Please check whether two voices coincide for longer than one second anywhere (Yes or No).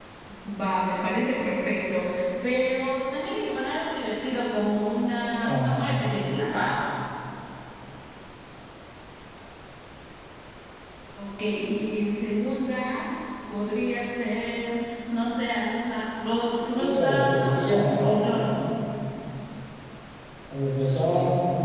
Yes